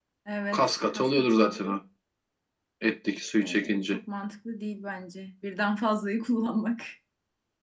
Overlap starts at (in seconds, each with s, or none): 0.5 s